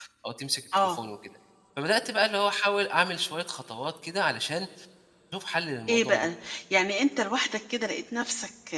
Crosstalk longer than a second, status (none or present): none